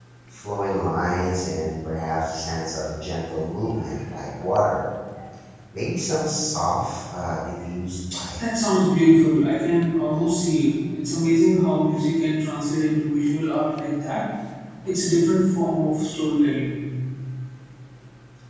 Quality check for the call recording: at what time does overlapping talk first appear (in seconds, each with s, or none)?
none